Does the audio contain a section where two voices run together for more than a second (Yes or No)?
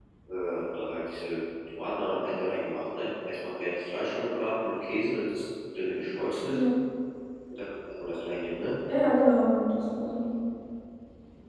No